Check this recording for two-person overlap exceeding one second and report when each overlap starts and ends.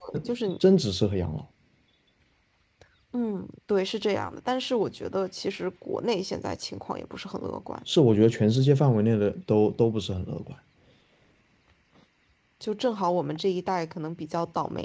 none

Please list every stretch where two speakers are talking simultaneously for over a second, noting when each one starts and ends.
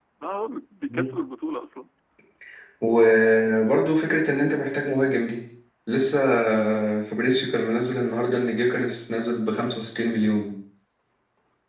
none

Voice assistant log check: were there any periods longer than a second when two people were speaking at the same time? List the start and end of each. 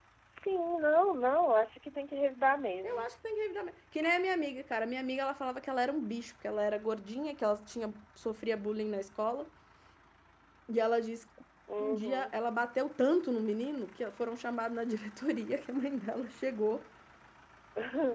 none

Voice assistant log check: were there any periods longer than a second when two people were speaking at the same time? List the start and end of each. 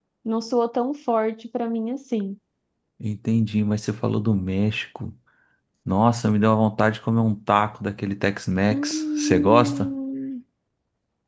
8.7-9.9

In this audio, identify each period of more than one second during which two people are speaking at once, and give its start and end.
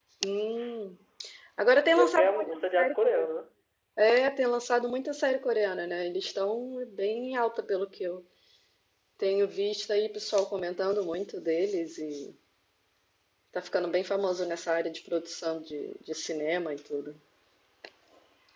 1.9-3.3

